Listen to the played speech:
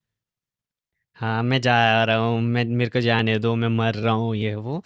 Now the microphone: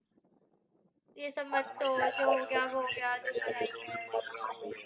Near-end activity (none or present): present